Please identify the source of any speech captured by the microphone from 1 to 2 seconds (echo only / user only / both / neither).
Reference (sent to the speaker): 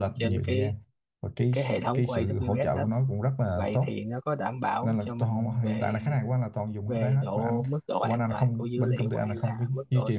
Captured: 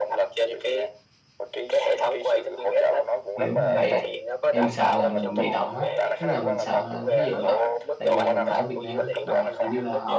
echo only